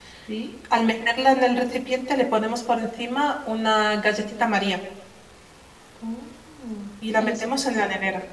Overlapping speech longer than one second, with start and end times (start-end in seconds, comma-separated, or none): none